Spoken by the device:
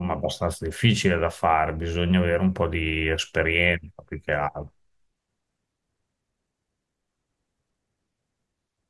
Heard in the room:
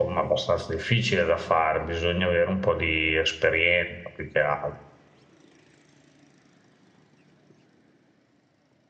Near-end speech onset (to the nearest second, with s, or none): none